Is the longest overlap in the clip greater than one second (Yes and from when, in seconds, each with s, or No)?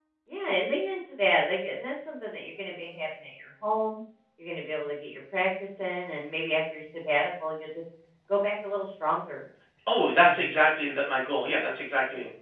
No